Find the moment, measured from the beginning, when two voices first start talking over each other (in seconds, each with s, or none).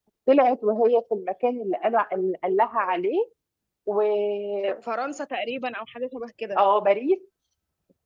none